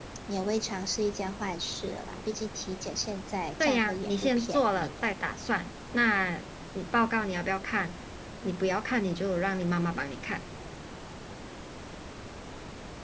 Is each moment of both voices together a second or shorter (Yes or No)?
No